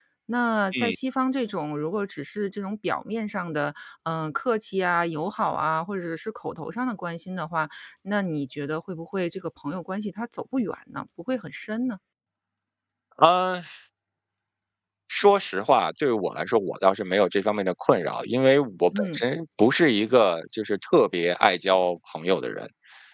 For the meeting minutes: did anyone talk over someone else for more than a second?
No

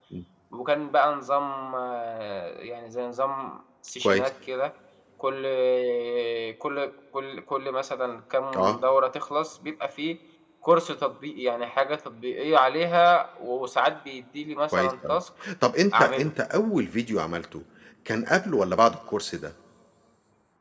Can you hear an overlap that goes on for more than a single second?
No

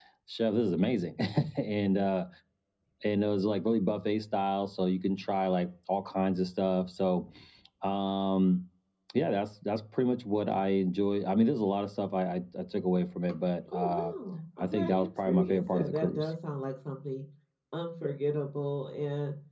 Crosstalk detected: Yes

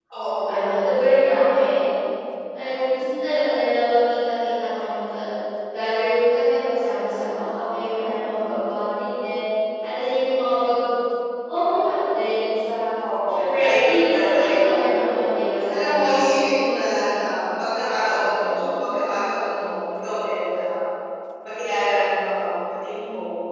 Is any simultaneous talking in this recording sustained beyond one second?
Yes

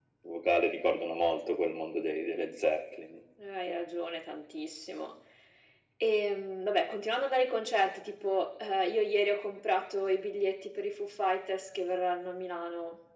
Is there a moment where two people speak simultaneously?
No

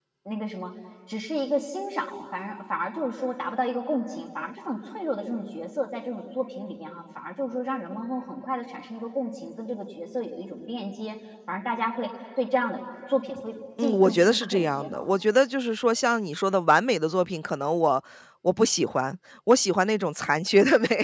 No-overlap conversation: No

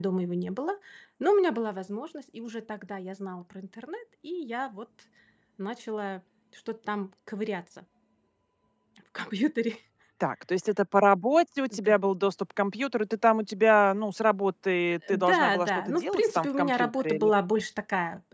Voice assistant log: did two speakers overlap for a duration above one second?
Yes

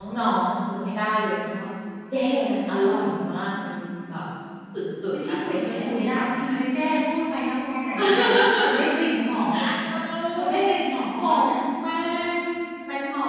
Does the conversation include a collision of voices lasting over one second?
Yes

